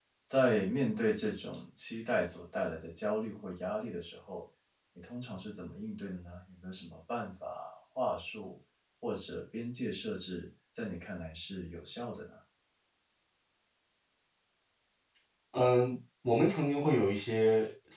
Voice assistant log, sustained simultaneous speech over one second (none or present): none